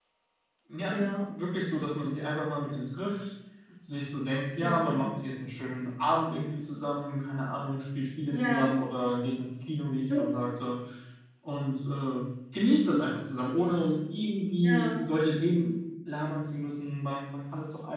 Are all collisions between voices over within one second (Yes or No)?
Yes